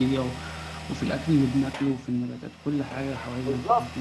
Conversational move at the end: taking over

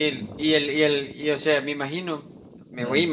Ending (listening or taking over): listening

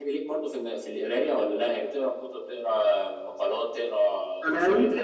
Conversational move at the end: taking over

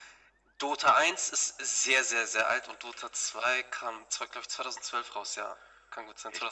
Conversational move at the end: taking over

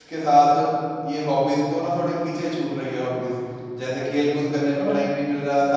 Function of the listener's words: listening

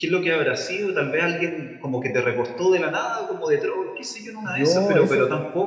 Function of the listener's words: listening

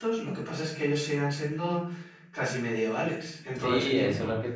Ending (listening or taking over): taking over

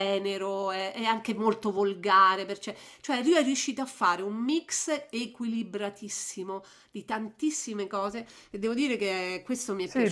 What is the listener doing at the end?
taking over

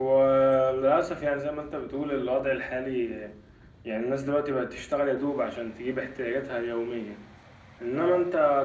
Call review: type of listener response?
listening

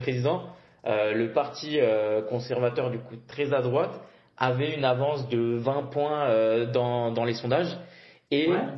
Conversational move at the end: listening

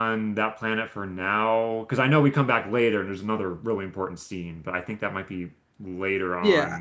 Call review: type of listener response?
taking over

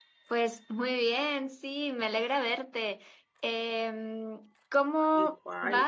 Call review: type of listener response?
listening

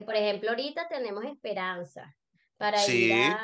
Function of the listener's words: listening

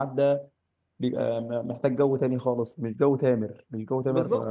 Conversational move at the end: taking over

